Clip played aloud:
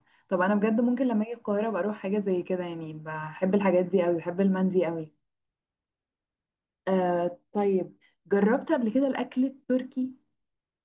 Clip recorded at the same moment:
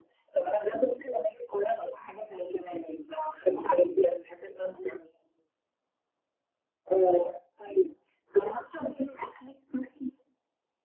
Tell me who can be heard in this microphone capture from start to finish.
echo only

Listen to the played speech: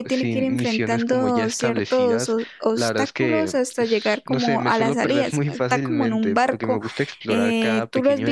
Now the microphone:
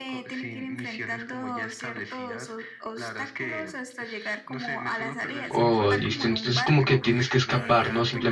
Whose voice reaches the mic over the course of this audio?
both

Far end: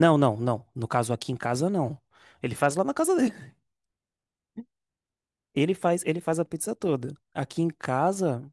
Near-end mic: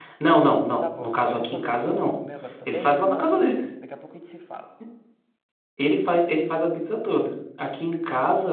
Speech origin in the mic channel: both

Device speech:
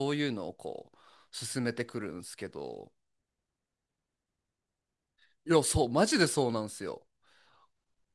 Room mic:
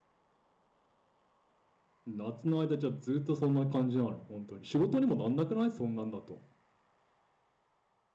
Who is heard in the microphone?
user only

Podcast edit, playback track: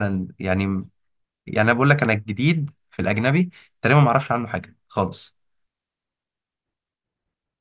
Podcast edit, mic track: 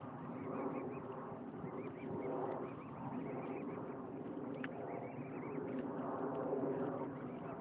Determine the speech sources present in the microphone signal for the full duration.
neither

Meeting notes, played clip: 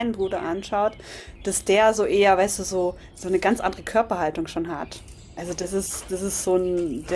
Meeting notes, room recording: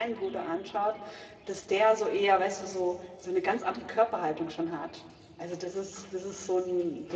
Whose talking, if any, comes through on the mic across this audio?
echo only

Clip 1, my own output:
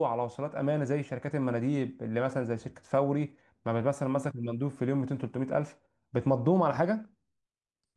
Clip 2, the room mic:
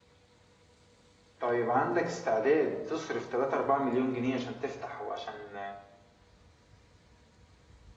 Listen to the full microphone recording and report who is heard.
user only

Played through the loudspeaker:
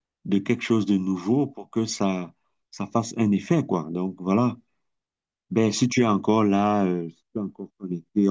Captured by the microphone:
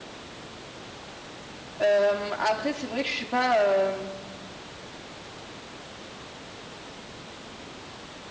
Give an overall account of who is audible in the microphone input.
user only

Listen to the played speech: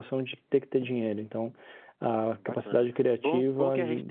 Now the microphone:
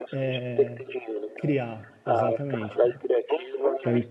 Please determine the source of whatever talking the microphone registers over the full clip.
both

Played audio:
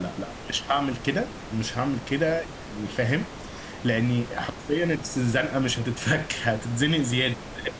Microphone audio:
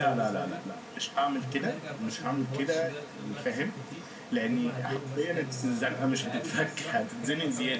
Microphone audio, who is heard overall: both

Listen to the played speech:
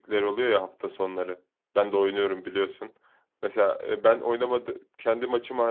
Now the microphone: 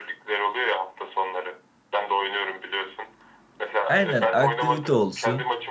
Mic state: both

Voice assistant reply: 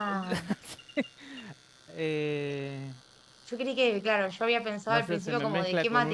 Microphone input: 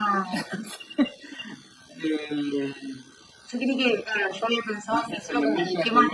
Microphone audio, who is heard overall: echo only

